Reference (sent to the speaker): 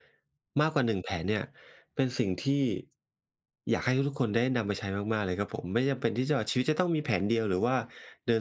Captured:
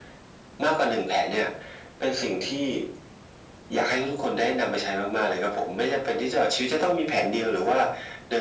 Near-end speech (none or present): none